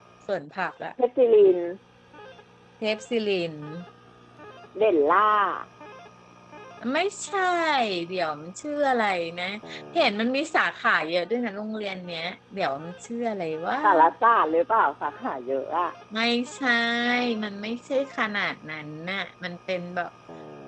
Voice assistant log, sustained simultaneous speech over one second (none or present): none